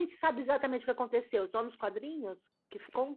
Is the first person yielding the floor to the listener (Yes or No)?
Yes